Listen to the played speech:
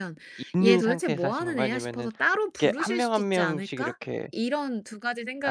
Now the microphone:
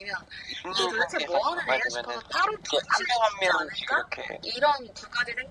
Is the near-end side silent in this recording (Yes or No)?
Yes